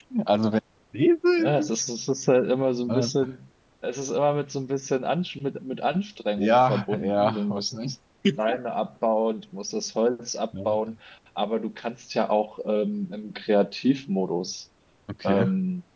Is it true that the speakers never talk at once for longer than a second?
No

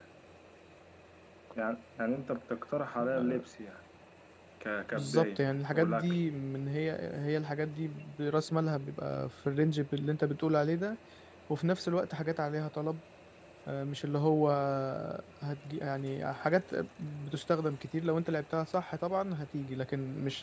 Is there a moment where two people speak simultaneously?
Yes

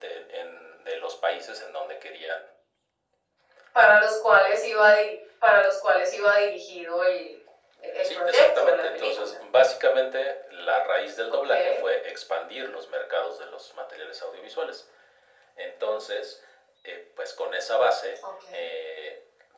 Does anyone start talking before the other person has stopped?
Yes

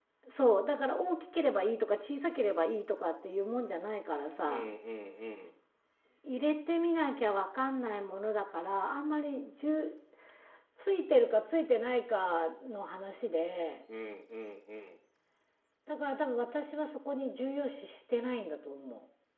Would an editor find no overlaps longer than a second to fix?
Yes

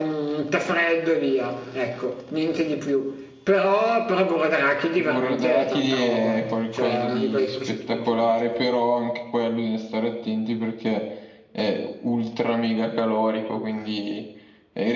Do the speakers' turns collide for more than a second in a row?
Yes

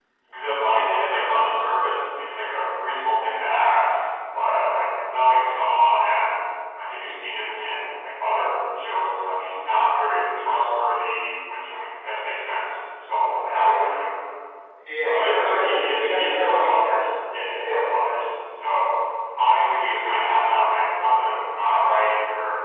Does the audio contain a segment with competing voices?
Yes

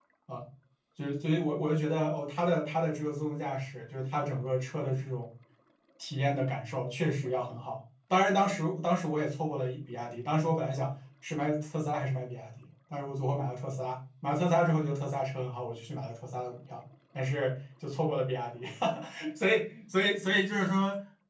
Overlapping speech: No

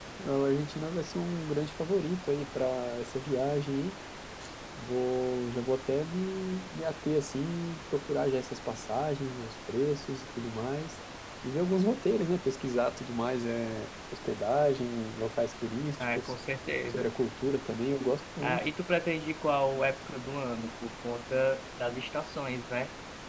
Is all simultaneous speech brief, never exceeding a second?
Yes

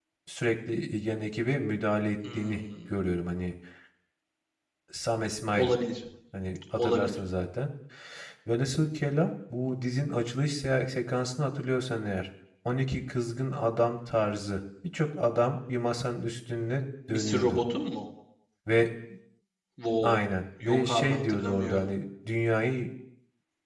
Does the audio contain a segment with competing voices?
Yes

